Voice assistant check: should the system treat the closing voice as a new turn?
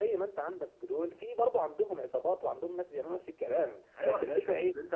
Yes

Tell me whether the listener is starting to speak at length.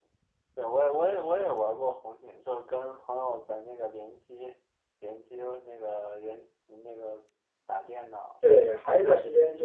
Yes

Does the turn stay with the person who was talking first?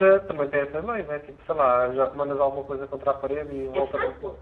No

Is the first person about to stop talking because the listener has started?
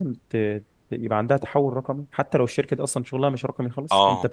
Yes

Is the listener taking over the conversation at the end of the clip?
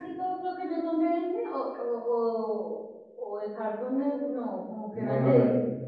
Yes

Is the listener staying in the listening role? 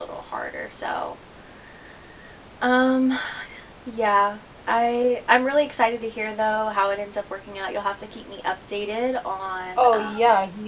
No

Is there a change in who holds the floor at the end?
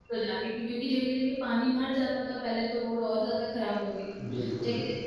No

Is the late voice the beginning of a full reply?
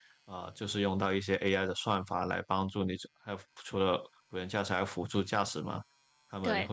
No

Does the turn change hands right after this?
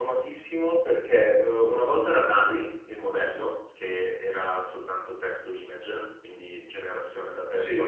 No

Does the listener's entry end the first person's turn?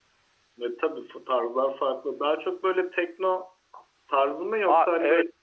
Yes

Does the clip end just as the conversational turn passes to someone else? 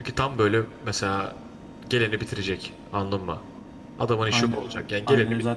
Yes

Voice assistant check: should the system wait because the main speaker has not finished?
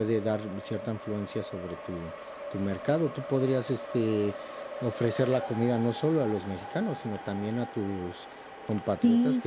No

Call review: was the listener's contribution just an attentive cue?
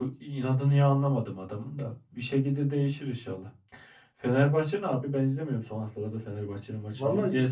Yes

